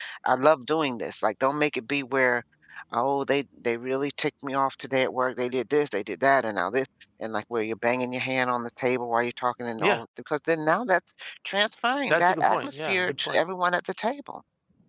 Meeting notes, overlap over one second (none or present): present